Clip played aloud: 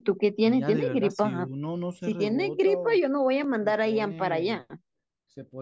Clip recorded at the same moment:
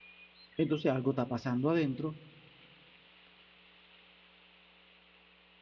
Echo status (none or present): none